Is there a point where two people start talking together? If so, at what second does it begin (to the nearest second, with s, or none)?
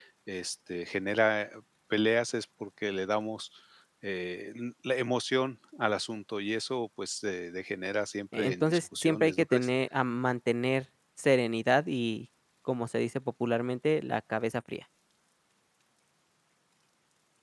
8 s